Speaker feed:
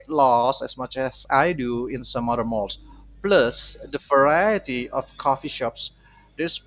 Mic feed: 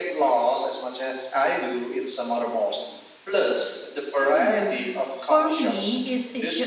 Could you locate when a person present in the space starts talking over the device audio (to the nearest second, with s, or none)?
4 s